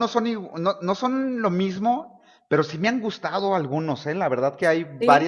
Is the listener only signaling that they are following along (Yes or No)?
Yes